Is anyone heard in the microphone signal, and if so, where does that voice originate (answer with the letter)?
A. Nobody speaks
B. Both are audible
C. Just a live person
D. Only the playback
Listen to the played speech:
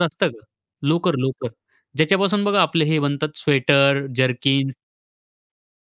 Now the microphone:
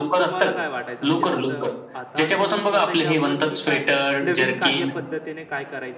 B